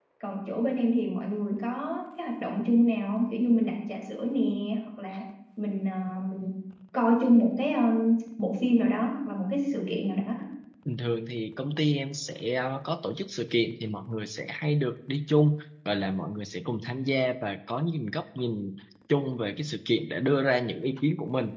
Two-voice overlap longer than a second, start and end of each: none

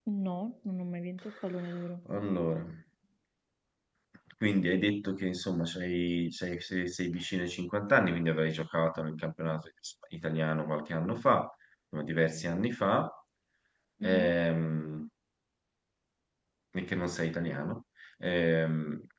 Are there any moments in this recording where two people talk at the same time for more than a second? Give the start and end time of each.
none

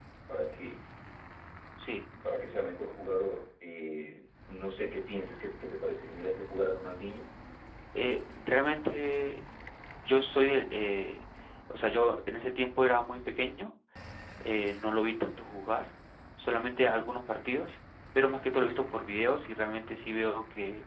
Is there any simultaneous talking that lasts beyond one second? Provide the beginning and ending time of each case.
none

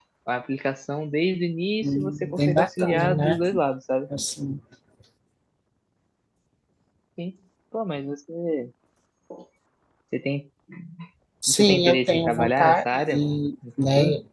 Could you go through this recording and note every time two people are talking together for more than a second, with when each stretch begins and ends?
1.8-3.4, 11.5-13.2

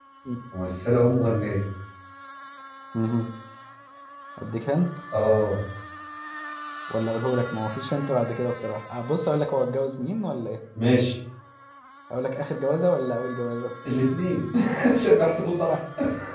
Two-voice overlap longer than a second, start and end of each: none

